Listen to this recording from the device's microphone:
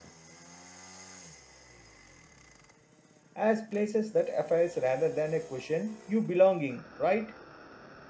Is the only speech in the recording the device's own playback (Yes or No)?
No